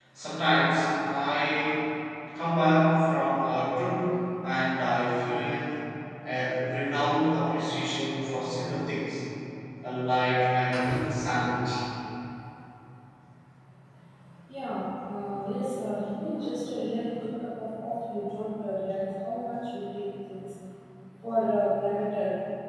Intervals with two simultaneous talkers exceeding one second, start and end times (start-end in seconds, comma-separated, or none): none